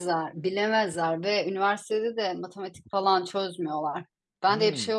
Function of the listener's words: listening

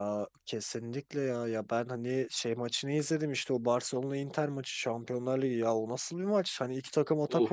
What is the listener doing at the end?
listening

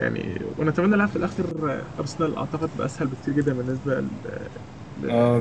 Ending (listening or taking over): taking over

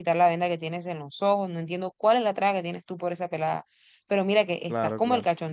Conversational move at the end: listening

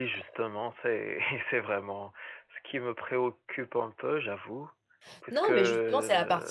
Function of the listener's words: taking over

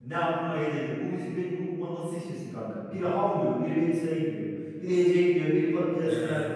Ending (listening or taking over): taking over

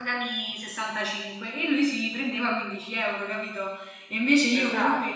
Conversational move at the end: listening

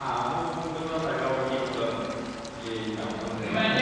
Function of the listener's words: taking over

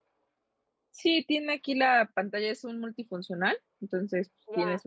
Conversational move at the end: taking over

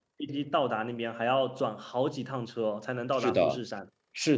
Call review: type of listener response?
taking over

